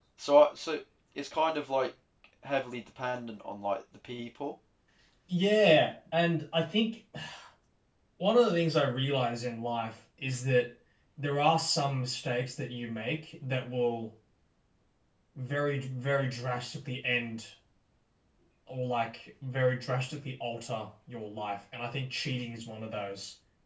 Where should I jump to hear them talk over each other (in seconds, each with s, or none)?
none